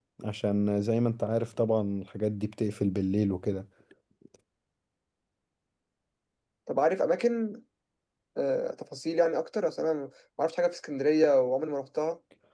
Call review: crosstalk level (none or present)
none